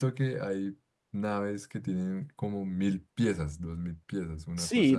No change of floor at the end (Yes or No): No